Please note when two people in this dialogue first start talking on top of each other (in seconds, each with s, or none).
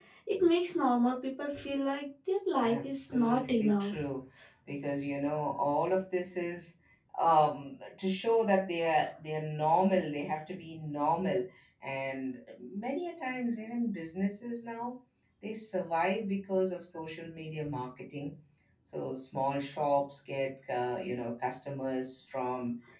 2.6 s